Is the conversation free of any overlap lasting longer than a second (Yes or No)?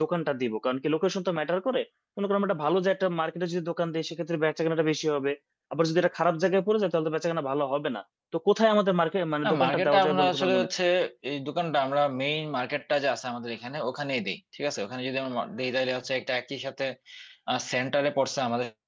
No